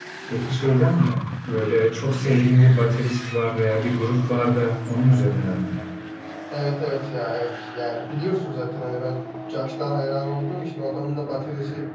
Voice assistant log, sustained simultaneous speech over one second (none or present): none